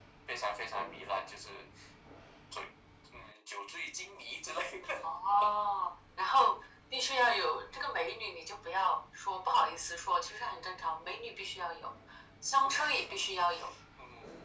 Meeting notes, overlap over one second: none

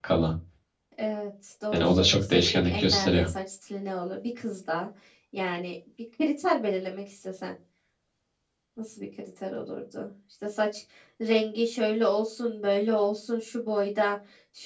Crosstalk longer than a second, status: present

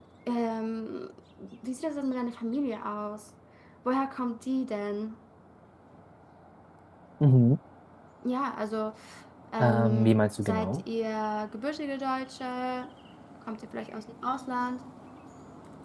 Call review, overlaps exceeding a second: present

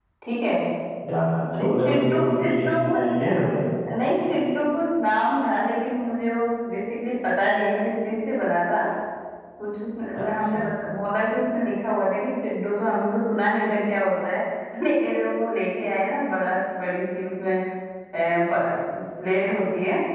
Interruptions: present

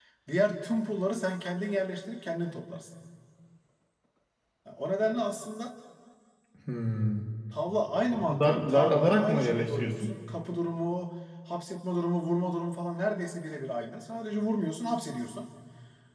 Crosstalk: present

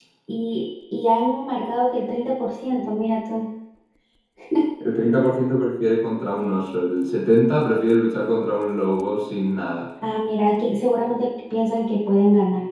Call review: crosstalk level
none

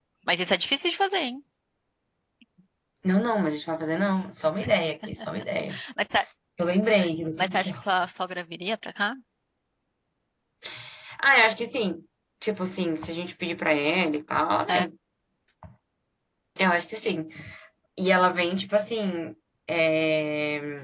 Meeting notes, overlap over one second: none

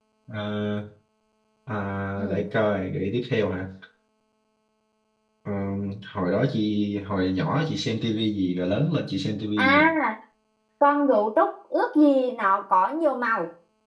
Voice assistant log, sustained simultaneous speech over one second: none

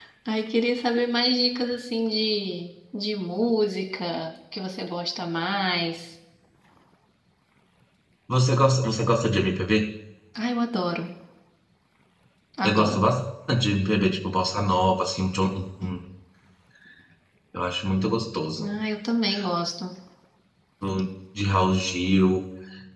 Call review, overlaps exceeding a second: none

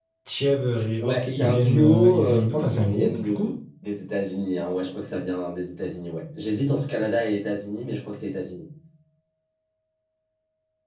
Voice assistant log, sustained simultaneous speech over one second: present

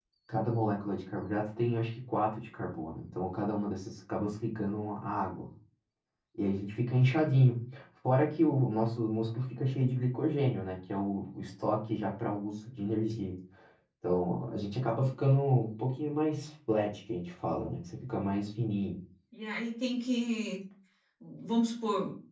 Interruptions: none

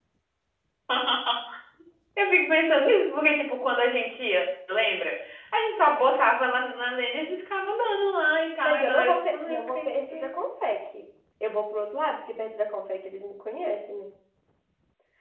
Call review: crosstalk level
present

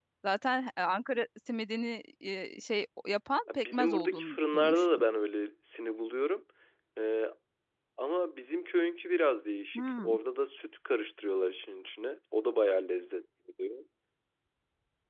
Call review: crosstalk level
present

